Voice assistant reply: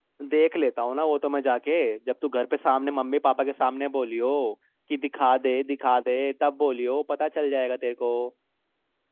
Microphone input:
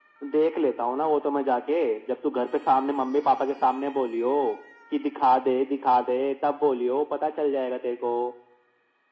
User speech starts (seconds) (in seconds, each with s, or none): none